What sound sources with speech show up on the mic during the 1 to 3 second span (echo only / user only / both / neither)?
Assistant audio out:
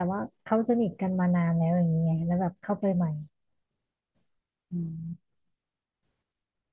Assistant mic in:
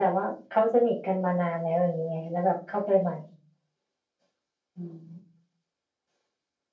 echo only